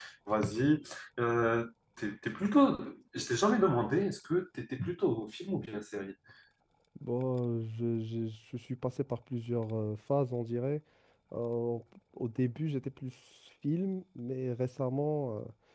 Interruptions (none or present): none